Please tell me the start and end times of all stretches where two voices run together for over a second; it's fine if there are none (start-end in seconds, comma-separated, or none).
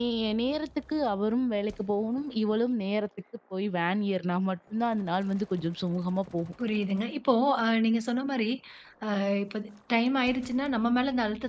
none